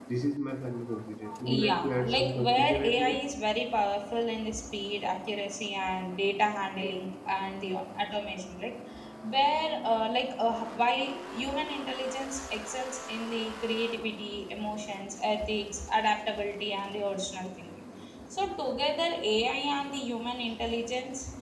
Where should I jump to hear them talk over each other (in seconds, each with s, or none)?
1.4 s